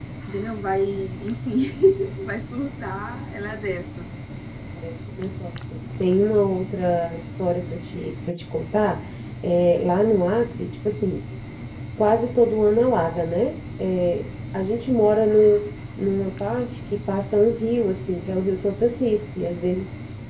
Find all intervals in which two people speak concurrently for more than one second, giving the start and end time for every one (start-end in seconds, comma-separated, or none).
none